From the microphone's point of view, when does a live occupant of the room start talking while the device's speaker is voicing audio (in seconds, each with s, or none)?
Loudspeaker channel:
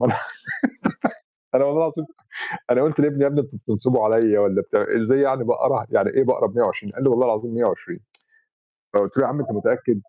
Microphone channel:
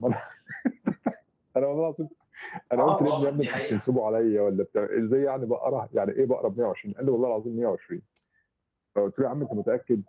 2.8 s